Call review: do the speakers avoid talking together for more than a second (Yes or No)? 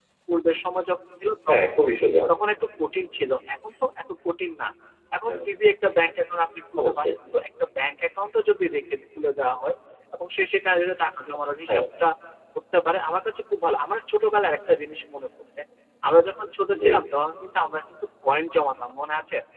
Yes